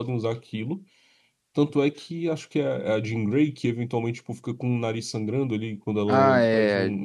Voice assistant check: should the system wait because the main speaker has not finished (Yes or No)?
No